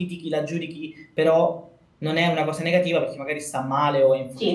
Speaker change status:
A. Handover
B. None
A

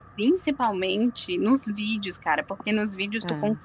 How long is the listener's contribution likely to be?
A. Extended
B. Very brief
B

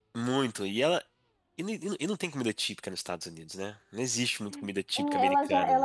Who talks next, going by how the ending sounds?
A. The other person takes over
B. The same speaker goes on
A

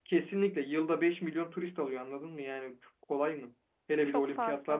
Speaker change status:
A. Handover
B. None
B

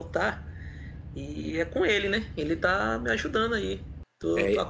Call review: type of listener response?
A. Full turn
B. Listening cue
B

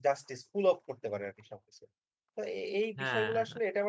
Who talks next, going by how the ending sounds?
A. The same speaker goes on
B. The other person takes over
A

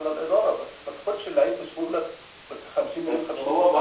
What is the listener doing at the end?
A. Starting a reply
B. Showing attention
A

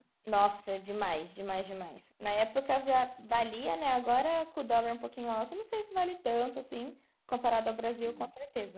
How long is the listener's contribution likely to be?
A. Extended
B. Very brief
B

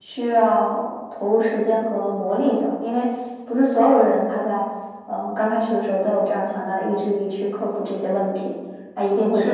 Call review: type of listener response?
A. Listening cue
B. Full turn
B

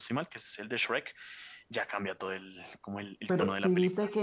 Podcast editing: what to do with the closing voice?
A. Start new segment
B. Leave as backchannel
A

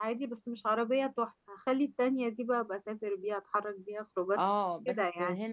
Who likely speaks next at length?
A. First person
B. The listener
B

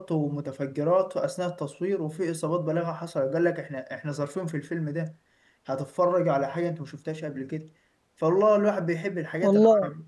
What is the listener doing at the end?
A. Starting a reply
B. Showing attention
B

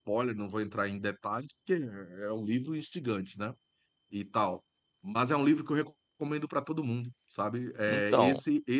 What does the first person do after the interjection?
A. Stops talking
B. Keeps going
B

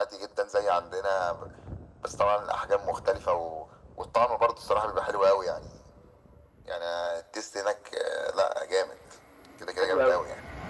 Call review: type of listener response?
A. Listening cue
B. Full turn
B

